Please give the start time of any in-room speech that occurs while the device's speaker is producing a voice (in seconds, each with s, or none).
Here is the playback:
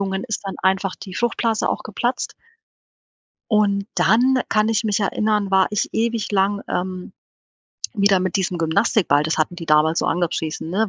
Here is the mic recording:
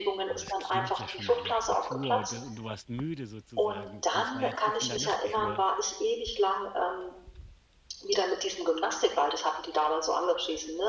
0.3 s